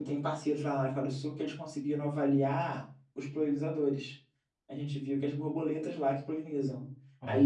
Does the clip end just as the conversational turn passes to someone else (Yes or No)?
No